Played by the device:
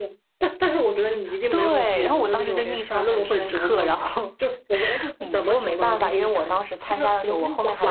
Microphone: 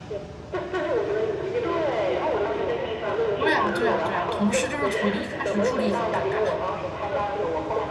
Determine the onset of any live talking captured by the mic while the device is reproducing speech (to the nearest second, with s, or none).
3 s